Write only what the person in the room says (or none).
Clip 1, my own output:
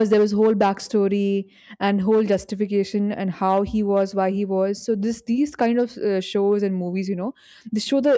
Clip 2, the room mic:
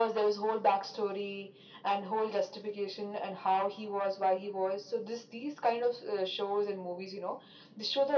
none